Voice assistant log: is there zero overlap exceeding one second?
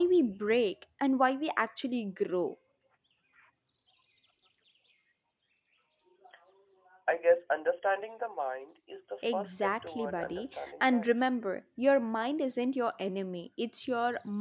No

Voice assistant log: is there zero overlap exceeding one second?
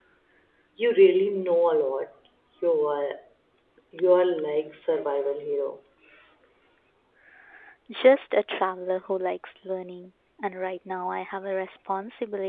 Yes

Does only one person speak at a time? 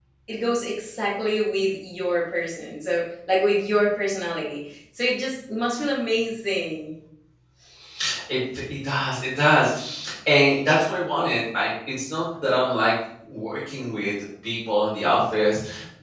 Yes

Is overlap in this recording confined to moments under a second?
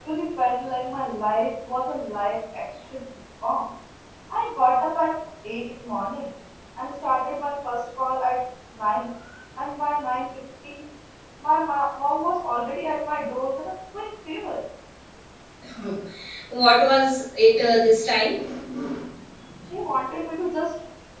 Yes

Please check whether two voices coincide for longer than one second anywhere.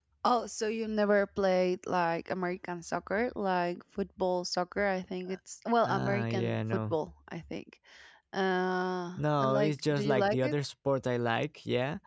Yes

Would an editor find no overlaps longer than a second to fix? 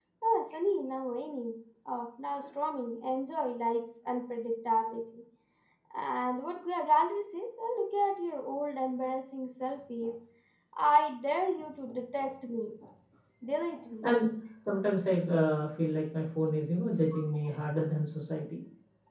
Yes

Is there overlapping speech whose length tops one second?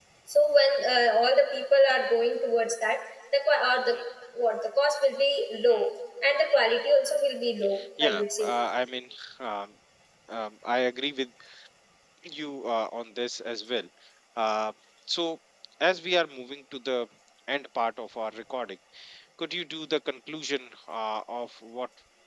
No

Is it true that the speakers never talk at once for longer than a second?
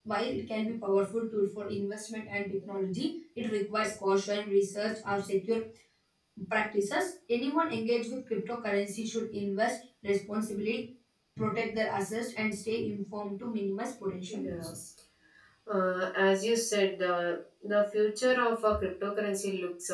Yes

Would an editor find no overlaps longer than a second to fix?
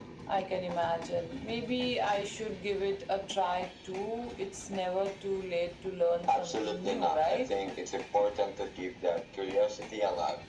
No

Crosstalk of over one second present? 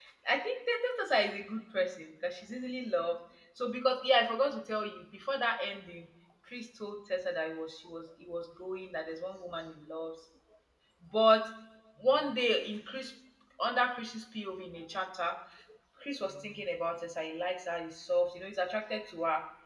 No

